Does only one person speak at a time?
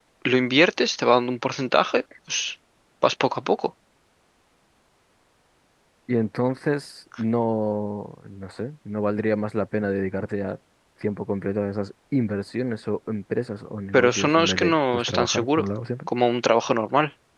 No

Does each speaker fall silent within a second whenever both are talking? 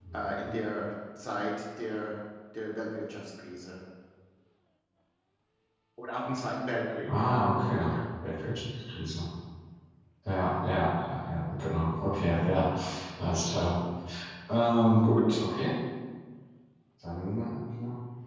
Yes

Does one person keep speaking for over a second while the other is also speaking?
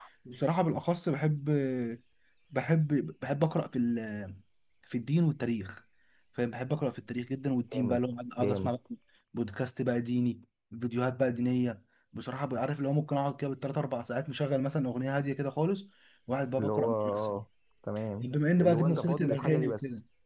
Yes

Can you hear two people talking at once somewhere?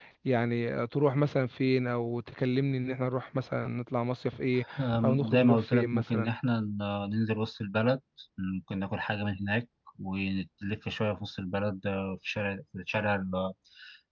Yes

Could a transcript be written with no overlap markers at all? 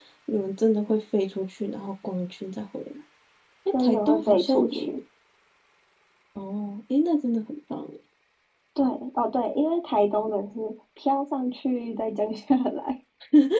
No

